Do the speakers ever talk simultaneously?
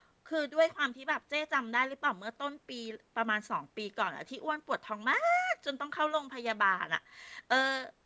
No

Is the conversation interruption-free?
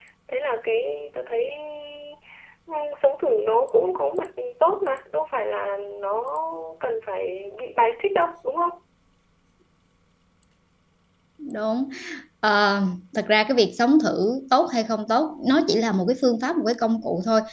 Yes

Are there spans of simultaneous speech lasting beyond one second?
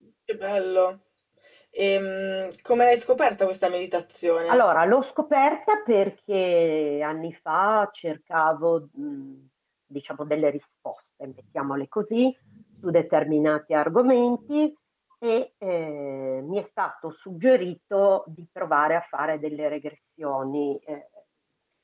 No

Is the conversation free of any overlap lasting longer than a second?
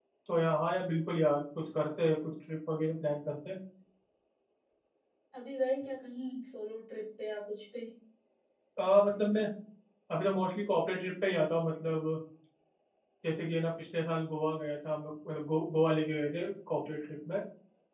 Yes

